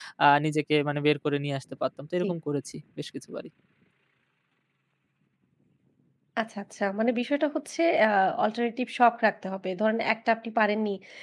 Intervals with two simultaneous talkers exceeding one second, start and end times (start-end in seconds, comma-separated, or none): none